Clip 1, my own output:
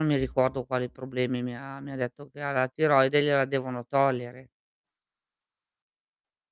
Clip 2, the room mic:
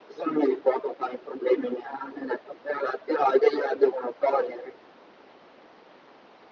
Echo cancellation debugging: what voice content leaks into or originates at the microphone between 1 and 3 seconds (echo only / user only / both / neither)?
echo only